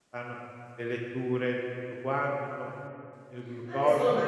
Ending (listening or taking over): taking over